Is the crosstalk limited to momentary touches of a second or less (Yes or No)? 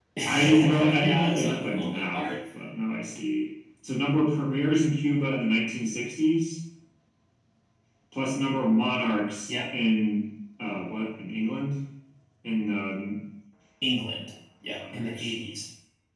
No